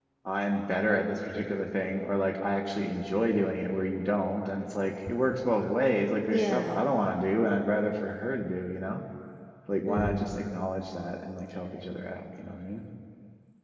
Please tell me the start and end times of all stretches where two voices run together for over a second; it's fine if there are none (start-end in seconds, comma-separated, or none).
none